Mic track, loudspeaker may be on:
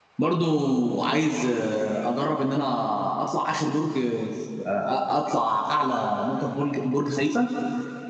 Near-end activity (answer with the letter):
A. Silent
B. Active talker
B